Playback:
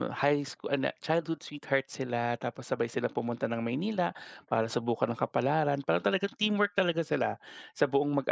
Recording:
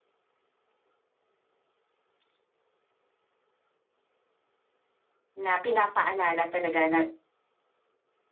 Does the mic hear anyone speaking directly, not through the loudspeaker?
Yes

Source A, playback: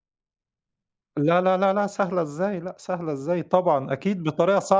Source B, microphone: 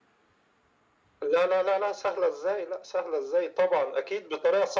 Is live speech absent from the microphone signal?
Yes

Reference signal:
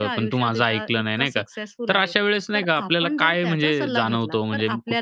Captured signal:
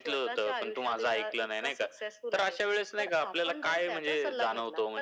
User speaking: No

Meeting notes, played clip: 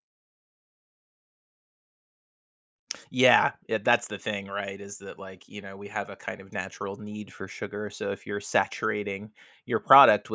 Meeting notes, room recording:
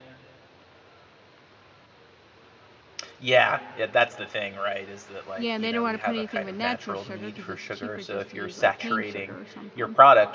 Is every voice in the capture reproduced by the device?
No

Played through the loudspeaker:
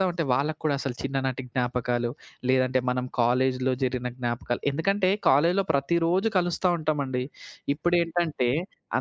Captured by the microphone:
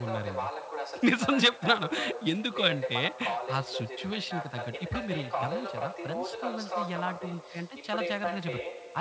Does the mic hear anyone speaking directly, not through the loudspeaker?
Yes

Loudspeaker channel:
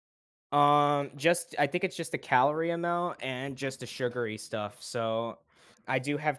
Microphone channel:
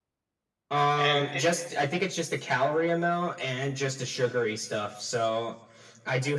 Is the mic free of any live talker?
No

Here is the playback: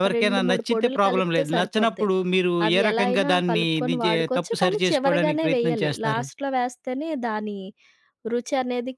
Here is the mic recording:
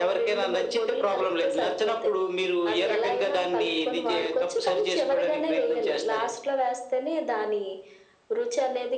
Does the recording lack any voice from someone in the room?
Yes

